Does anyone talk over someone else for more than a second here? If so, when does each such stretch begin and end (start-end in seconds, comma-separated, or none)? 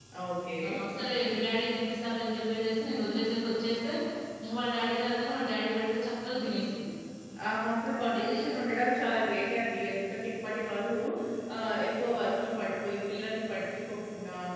none